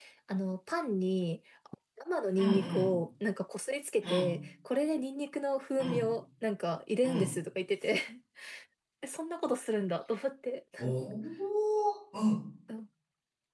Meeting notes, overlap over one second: none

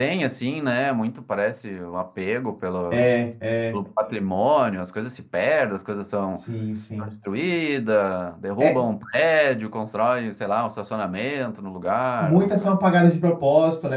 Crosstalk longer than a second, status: none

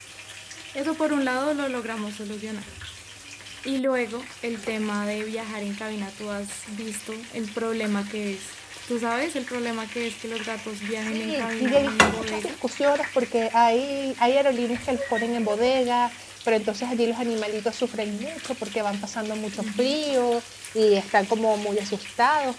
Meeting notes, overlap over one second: present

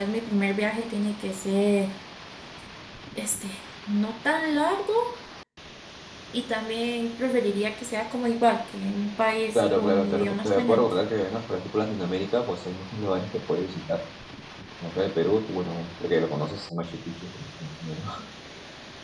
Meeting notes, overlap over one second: present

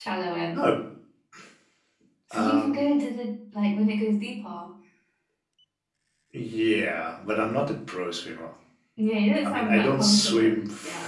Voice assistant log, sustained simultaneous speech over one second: present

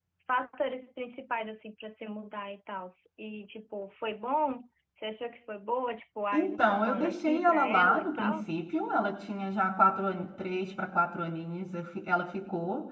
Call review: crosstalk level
present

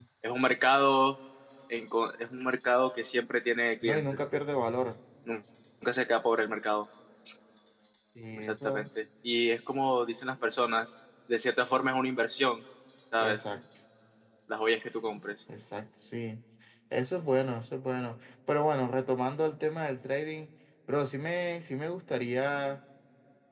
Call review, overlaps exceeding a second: none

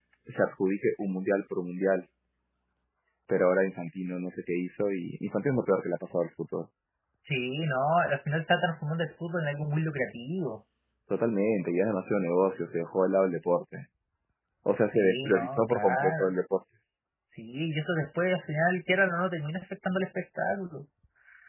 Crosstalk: present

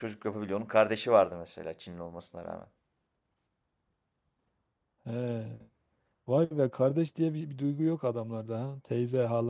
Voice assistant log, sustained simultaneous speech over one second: none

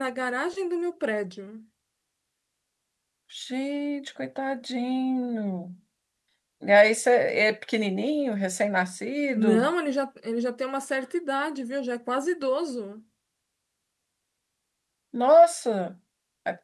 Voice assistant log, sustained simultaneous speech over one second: none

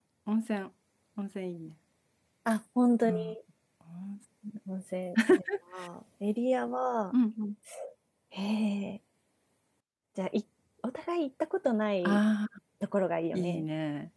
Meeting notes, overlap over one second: none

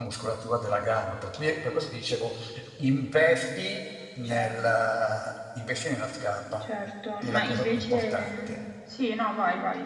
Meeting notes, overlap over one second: present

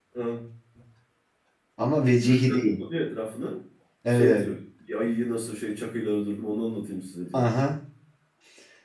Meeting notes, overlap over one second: none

